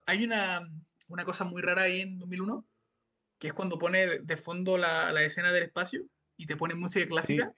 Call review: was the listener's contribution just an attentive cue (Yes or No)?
Yes